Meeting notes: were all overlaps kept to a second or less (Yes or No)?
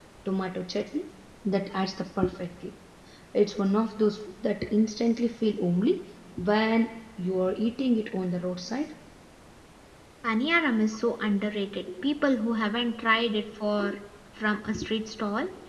Yes